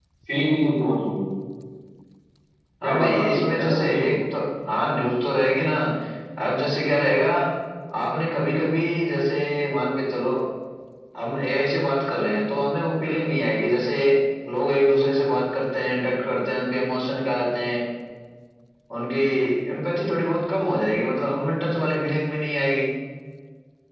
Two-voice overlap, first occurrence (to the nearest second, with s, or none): 3 s